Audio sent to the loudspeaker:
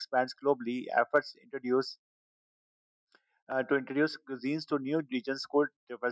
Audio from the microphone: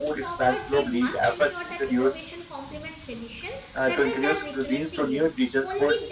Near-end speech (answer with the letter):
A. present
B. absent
A